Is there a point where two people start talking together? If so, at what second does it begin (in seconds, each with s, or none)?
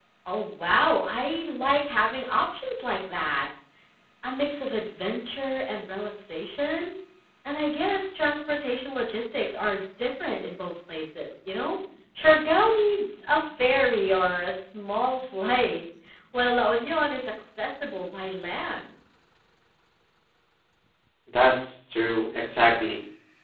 none